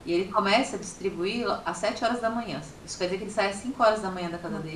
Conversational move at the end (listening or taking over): taking over